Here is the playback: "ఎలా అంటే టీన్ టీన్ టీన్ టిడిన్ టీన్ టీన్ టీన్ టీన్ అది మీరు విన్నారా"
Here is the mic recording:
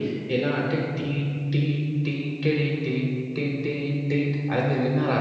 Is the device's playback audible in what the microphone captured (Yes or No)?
Yes